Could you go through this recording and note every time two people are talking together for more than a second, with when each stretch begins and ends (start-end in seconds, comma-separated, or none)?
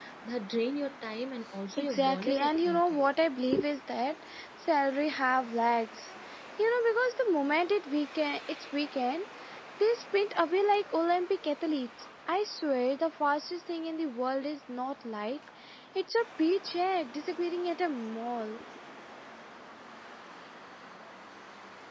1.8-3.0